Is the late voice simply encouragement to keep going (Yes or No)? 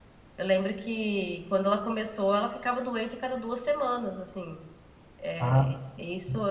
Yes